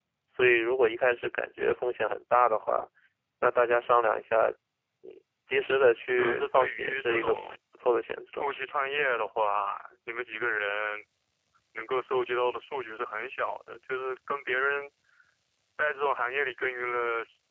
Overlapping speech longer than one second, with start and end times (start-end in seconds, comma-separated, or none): 6.1-7.3